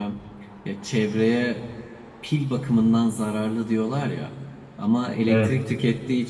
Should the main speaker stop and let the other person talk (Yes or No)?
No